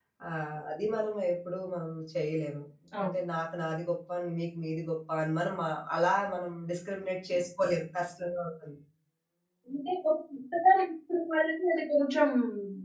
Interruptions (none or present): none